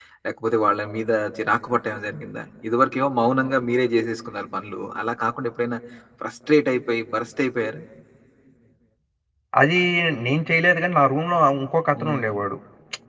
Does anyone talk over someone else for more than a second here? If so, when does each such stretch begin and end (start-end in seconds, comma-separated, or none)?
none